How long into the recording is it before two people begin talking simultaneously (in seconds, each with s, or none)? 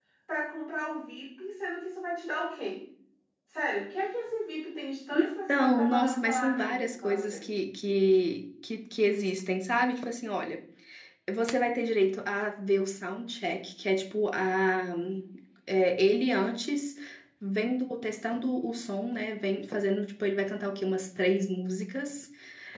5.5 s